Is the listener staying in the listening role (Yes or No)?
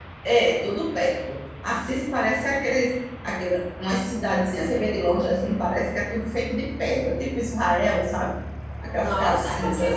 No